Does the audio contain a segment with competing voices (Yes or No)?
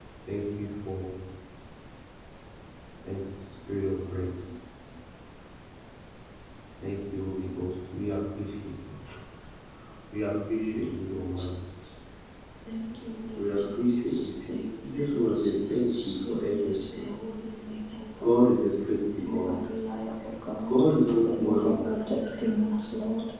Yes